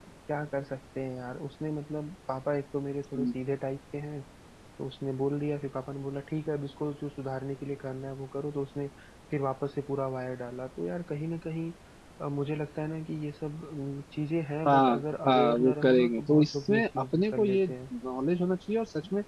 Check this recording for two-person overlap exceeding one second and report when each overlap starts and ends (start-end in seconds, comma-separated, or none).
14.7-17.8